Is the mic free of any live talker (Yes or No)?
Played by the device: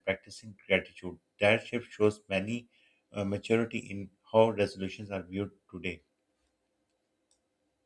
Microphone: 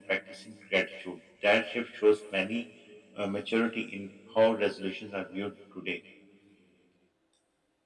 Yes